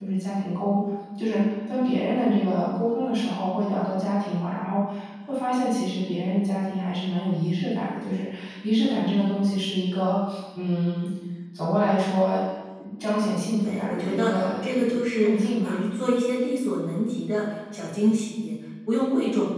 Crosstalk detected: Yes, from 13.6 s

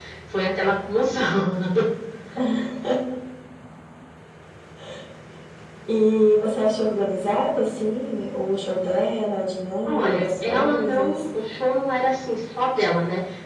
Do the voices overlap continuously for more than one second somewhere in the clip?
Yes, from 9.8 s

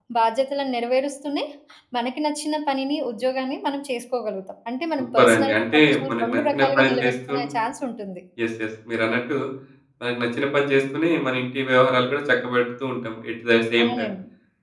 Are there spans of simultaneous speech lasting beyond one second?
Yes, from 5.2 s

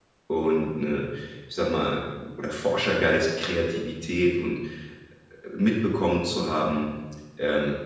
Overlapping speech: No

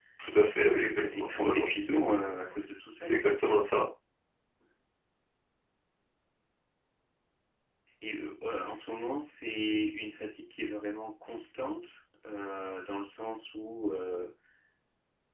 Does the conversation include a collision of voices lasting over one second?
Yes, from 0.7 s

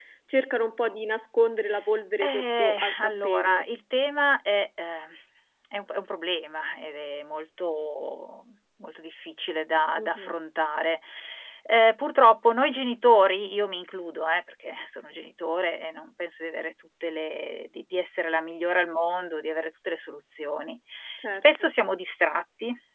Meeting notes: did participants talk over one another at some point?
Yes, from 2.2 s

